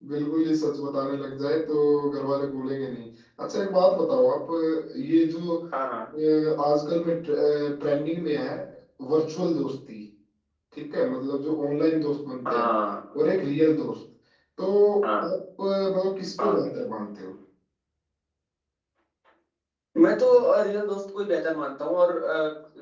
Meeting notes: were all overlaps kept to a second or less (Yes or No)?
Yes